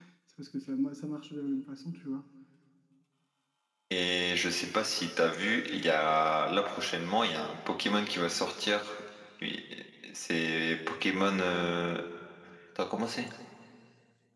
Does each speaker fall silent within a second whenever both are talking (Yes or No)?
Yes